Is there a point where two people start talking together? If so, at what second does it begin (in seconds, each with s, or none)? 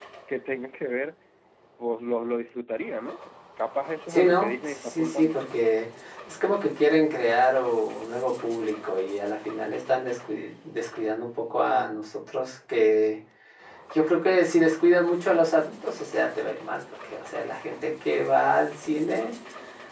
4.1 s